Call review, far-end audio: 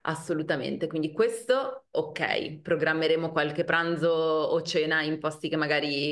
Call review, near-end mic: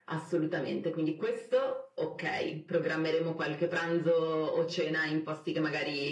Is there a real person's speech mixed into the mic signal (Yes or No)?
No